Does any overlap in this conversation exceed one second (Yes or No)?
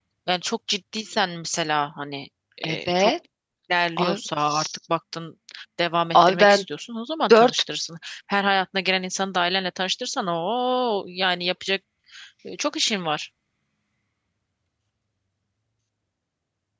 No